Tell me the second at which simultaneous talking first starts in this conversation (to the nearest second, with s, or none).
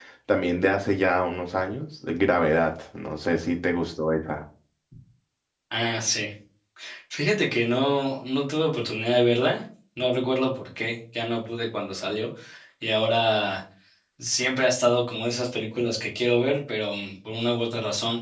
none